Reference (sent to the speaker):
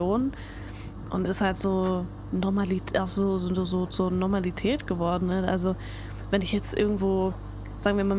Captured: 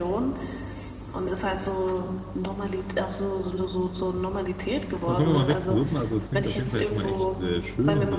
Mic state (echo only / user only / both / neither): both